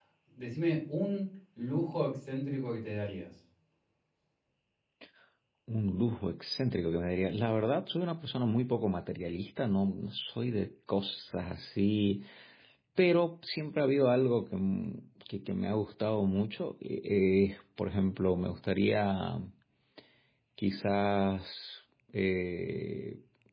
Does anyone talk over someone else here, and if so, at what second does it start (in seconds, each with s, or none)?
none